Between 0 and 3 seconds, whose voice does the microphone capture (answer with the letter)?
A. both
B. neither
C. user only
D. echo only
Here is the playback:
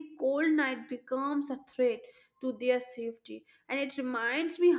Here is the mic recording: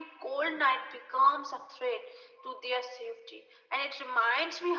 D